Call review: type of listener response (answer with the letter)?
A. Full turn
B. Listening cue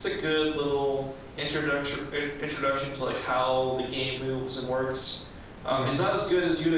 B